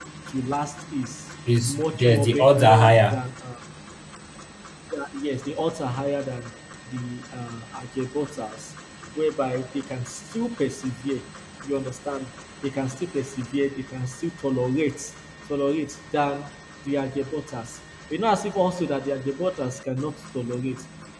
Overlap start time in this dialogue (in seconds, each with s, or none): 1.5 s